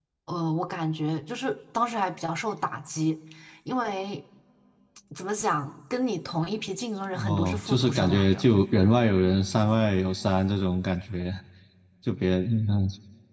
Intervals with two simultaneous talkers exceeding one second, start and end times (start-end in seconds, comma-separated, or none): 7.1-8.5